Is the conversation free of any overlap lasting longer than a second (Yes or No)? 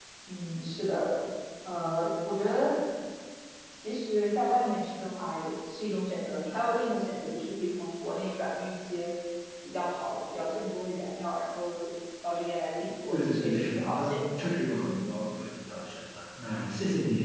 No